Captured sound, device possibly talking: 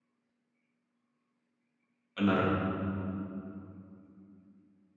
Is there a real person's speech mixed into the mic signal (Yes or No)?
Yes